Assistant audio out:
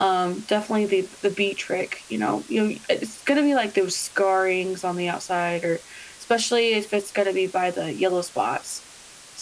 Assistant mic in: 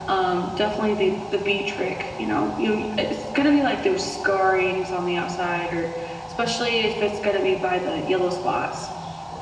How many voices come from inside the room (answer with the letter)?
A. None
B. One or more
A